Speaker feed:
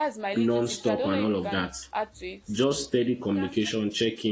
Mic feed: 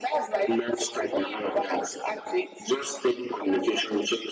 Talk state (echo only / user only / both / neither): echo only